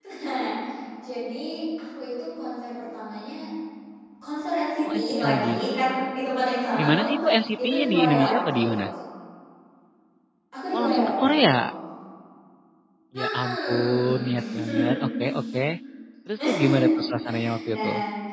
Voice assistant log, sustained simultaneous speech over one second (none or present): present